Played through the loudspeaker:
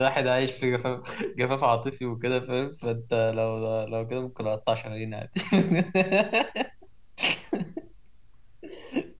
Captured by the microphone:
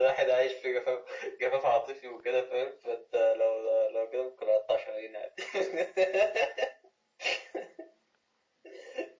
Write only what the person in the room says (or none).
none